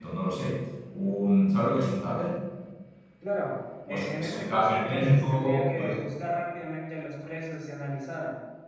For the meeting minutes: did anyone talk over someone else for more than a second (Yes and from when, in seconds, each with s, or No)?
Yes, from 3.9 s